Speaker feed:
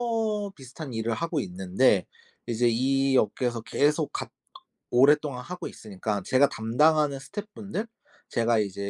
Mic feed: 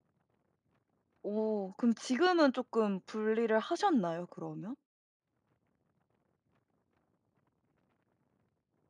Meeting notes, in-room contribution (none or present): present